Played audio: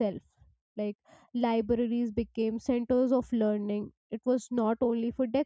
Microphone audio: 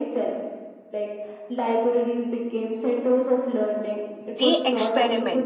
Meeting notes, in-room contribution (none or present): present